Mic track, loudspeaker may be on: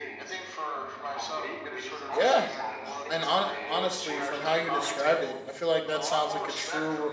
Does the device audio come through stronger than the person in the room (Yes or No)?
No